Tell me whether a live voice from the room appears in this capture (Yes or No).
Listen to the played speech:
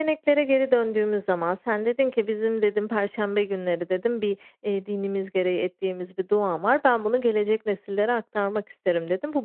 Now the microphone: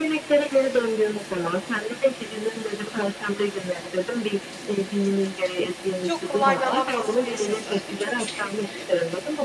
Yes